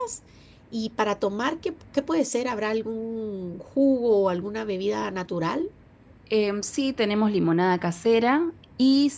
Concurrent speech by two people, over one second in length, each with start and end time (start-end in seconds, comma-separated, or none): none